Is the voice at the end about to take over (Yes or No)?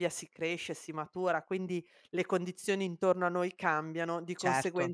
No